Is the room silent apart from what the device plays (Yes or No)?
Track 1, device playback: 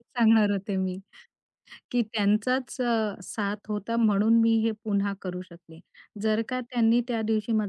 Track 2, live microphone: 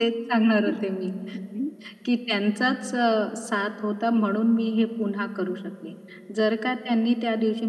No